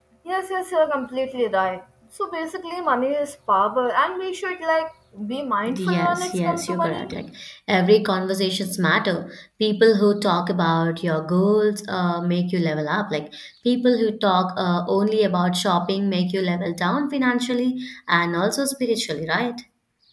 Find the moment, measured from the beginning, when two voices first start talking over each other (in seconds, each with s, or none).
5.7 s